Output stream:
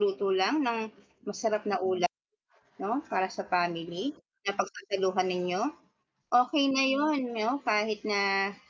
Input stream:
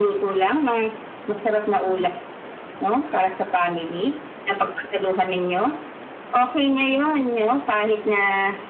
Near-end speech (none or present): none